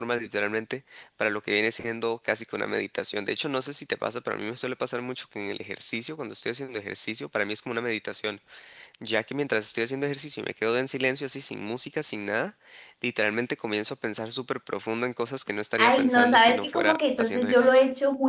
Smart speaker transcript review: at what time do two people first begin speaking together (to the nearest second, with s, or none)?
16 s